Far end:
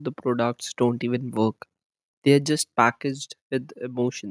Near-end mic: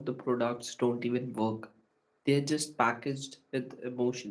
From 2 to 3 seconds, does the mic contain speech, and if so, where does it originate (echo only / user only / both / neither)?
echo only